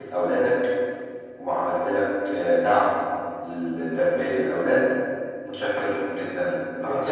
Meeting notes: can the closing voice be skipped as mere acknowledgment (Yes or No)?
No